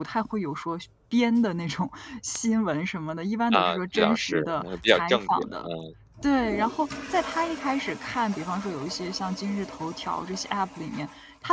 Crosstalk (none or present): present